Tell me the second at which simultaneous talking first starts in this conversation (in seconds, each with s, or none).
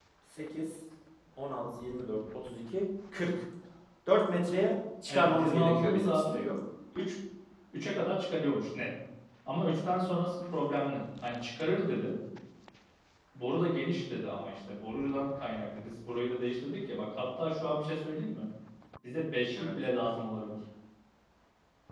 5.1 s